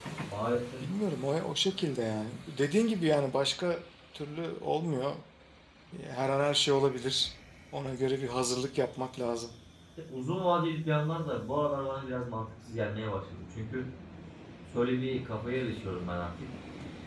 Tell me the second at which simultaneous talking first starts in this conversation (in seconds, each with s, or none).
none